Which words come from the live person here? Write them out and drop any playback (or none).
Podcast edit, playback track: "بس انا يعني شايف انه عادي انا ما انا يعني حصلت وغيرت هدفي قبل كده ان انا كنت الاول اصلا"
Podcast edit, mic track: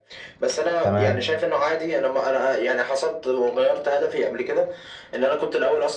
تمام